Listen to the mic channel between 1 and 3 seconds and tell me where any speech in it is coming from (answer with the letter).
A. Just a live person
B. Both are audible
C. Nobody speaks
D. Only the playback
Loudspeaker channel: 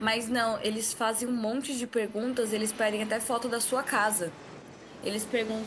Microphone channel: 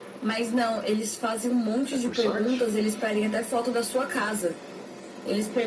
B